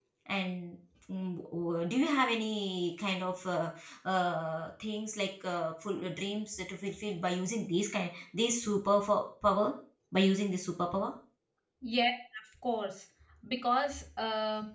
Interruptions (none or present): none